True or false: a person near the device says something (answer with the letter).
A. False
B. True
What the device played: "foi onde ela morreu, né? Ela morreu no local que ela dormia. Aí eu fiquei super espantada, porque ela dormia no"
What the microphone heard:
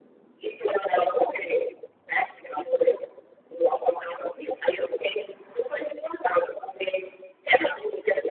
A